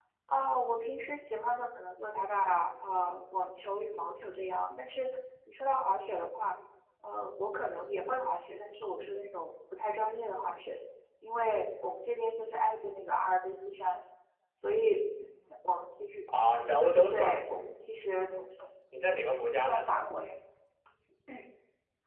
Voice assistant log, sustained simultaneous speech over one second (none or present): none